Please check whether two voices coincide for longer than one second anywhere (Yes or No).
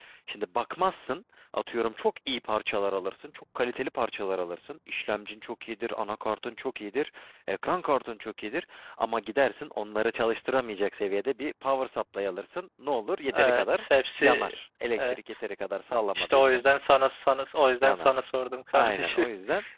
No